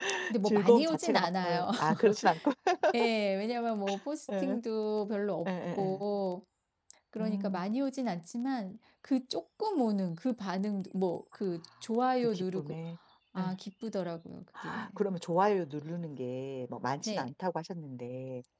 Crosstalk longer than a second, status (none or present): present